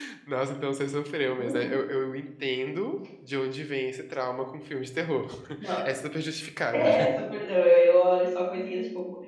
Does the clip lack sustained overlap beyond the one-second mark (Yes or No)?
Yes